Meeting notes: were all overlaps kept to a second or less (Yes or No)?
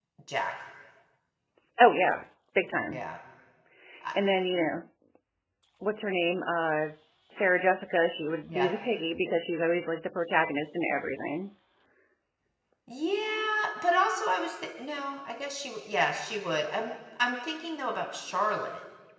Yes